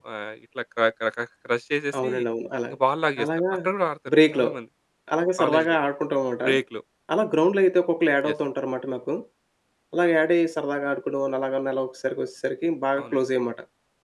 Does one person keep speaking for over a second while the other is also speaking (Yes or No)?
No